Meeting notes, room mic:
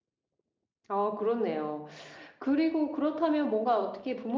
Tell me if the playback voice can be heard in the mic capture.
No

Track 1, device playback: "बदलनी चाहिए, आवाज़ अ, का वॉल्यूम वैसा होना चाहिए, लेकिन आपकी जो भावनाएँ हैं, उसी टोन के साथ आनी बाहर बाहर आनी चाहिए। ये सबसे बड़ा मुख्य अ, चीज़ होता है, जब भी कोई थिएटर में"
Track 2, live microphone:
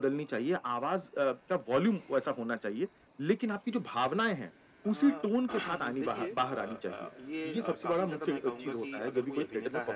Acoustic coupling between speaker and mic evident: Yes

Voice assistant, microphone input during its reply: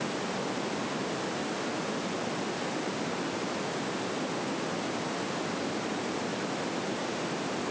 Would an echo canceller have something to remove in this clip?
No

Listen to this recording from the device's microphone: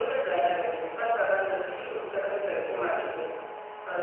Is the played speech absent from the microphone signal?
No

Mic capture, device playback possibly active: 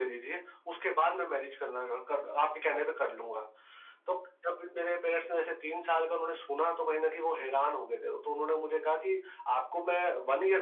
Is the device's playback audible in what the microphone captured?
Yes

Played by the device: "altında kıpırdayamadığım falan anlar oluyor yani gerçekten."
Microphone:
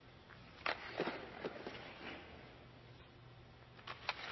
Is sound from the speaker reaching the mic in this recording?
No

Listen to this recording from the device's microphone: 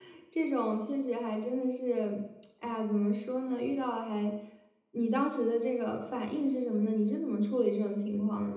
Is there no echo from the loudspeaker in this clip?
Yes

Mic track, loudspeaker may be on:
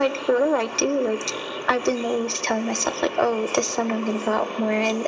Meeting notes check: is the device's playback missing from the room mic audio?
No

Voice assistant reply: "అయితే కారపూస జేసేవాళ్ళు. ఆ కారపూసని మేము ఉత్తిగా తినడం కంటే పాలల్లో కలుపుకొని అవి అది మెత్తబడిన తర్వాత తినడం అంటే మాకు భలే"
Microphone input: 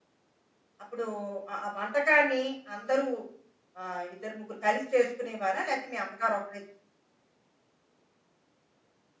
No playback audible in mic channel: Yes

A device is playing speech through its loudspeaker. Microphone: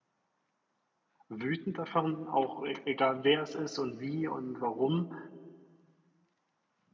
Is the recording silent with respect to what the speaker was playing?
Yes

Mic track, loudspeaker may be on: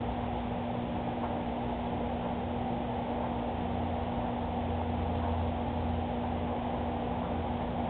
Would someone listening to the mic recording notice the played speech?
No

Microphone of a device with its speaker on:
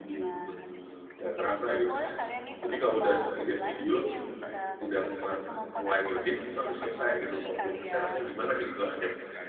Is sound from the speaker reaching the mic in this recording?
Yes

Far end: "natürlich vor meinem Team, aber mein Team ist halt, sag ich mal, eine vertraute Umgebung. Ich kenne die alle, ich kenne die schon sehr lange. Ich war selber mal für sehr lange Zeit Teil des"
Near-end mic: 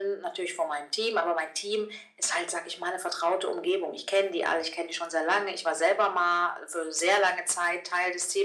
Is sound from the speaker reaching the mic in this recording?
Yes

